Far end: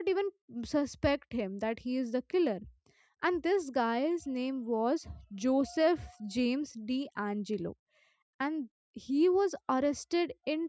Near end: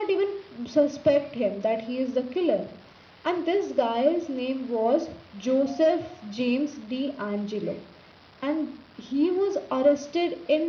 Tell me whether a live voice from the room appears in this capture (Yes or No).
No